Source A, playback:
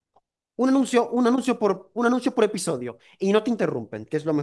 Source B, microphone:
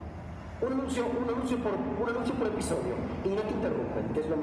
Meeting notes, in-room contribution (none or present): none